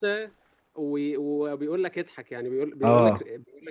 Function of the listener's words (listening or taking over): listening